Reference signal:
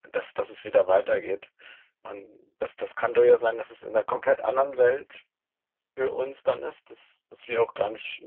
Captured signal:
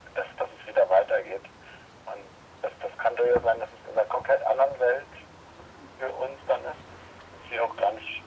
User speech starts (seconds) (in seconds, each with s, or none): none